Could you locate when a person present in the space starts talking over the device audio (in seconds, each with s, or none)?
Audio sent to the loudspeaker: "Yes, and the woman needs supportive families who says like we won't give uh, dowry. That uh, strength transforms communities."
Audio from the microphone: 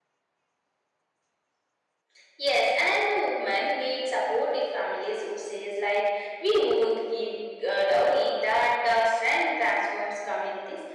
none